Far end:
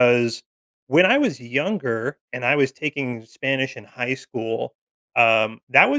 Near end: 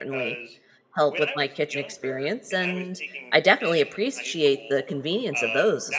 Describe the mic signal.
both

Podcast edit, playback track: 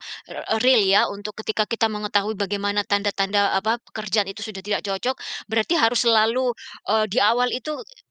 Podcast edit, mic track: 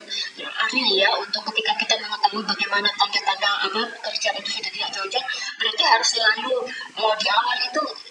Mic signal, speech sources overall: echo only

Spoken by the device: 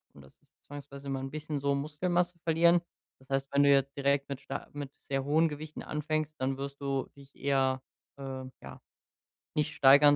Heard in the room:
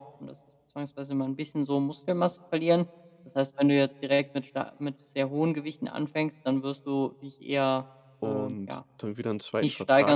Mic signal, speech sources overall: both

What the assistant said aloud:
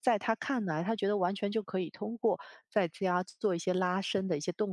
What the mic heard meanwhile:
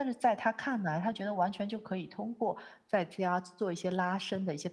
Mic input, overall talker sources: echo only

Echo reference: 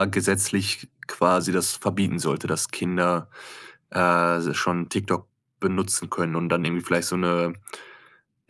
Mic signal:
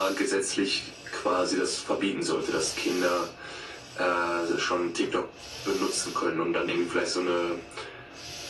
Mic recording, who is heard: echo only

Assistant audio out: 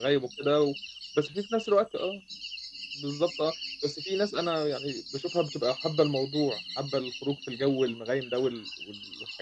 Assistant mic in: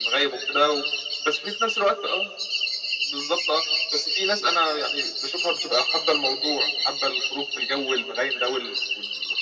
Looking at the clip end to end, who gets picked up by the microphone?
echo only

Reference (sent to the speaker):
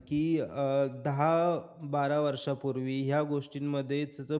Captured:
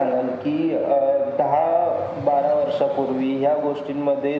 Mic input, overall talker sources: echo only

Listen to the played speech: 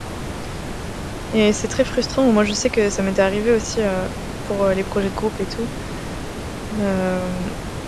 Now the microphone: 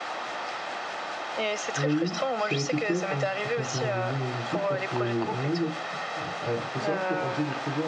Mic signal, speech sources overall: both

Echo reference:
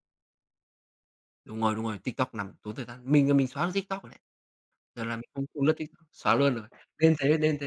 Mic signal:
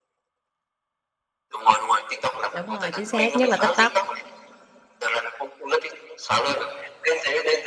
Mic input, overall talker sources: both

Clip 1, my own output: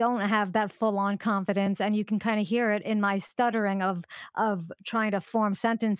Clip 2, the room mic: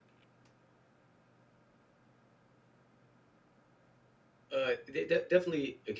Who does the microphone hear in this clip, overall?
user only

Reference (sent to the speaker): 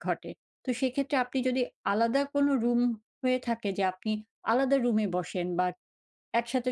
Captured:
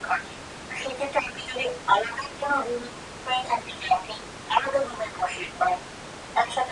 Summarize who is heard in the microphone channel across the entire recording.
echo only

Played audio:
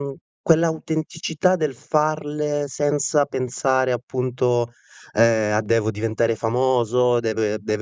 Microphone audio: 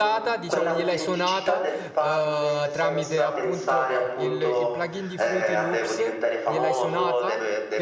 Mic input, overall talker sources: both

